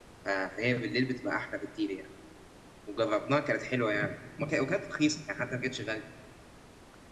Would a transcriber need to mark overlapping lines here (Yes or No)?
No